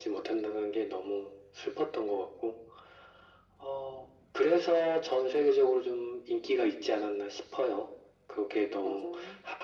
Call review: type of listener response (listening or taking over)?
listening